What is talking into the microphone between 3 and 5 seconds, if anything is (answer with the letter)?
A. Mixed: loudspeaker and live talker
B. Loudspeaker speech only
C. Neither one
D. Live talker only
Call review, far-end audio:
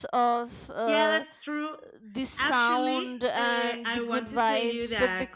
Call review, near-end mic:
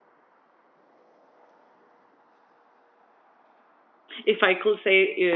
D